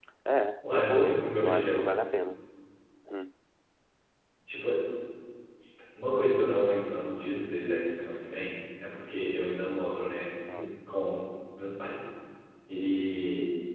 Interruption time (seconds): 0.7 s

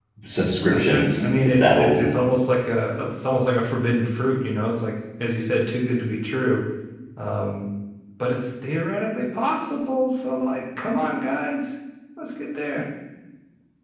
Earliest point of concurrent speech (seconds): 0.7 s

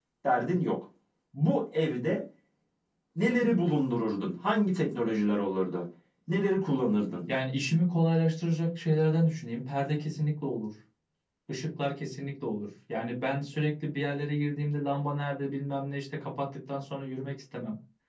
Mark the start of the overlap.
none

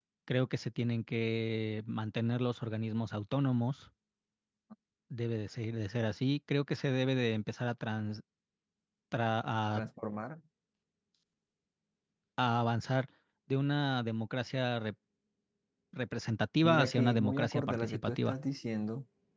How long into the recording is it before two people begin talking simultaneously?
16.6 s

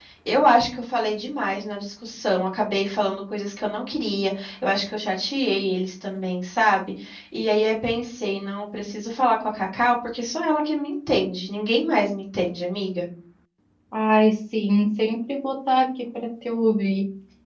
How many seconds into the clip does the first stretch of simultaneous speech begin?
none

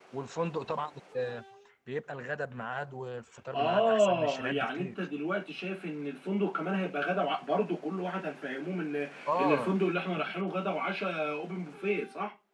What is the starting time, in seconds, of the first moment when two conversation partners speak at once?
3.5 s

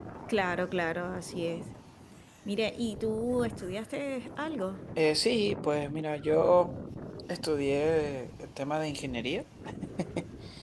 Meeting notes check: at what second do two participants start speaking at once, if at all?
none

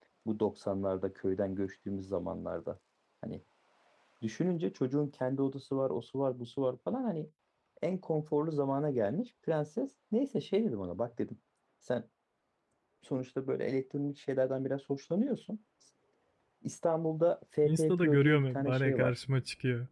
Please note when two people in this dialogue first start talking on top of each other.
17.6 s

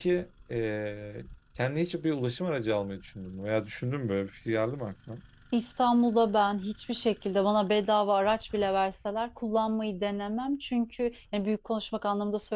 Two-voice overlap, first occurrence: none

